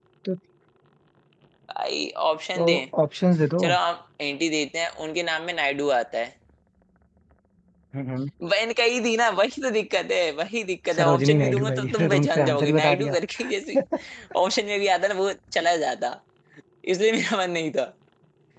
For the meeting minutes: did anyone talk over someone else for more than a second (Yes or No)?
Yes